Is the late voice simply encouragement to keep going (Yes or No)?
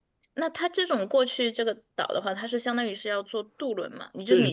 No